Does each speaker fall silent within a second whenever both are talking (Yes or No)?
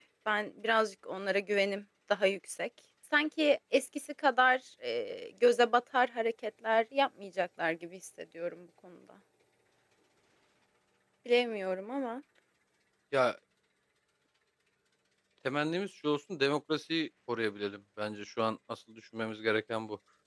Yes